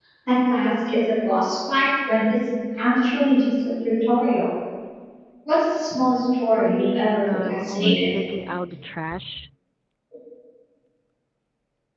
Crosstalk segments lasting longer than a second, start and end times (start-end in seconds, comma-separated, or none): 6.5-8.1